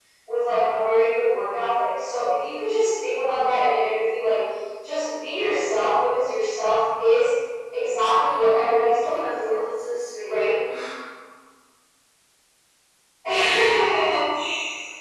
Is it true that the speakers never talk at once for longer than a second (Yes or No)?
No